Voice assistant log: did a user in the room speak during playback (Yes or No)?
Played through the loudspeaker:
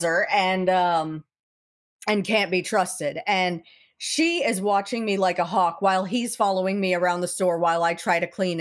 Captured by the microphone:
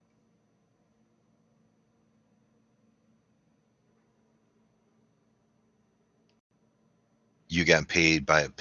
Yes